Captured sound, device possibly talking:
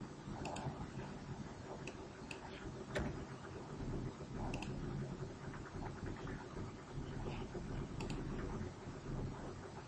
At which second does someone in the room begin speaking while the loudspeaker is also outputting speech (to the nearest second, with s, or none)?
none